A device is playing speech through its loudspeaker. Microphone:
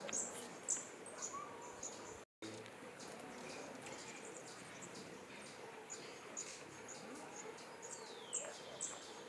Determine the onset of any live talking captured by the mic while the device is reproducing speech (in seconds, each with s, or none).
none